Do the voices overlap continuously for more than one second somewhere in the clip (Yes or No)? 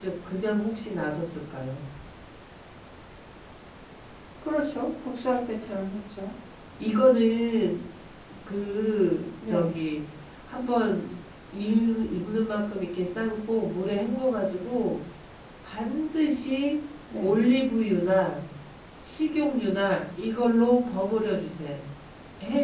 No